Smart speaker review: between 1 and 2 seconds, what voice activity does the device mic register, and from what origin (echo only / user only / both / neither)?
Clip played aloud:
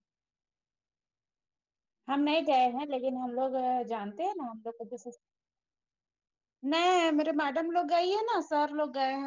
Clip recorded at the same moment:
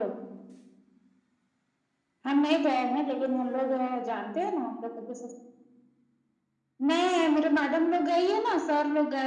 neither